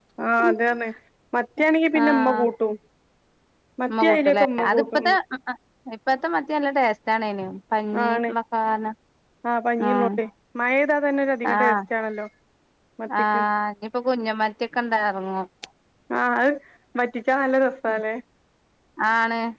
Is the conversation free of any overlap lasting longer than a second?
No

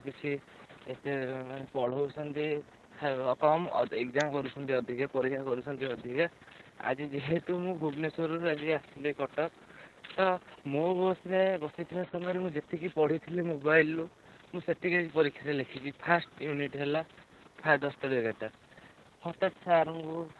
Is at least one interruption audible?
No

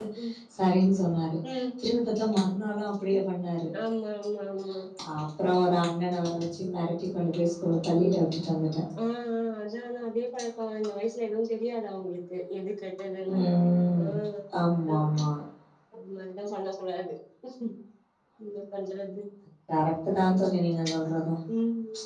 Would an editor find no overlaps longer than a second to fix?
Yes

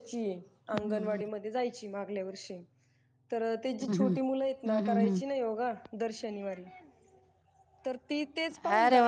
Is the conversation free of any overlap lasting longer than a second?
Yes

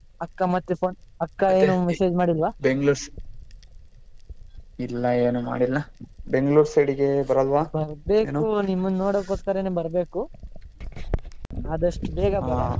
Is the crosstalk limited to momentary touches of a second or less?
Yes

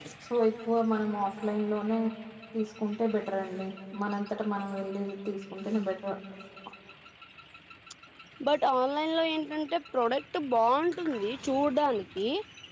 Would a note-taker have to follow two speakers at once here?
No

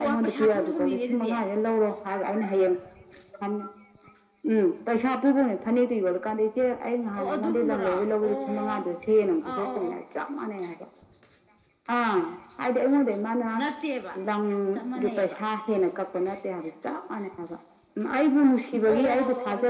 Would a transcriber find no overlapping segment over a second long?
No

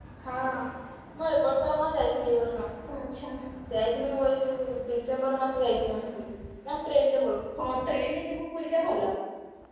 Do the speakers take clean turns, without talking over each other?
Yes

